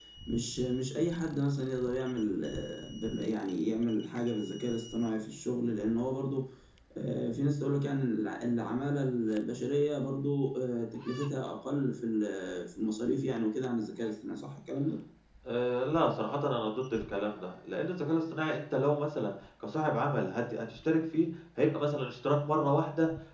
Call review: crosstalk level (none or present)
none